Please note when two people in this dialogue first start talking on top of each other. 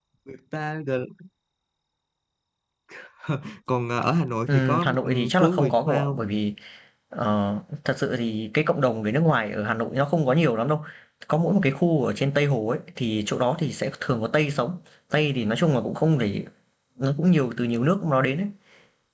4.5 s

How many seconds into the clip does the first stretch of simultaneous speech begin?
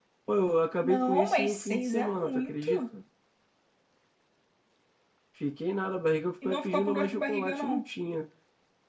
0.8 s

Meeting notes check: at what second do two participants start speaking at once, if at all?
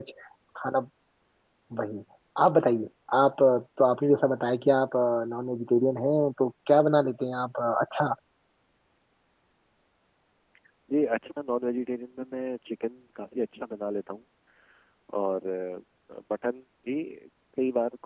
none

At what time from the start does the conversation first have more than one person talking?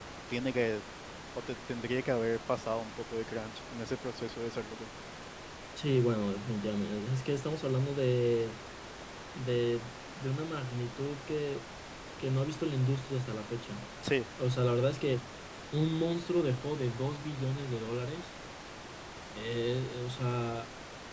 none

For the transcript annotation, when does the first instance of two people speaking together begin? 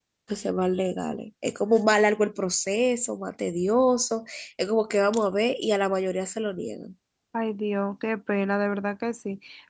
none

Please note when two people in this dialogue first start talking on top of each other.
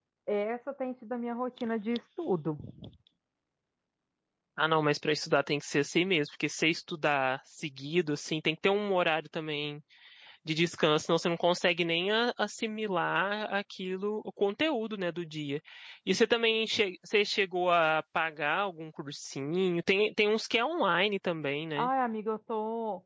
none

